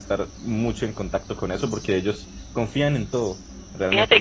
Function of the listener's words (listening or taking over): taking over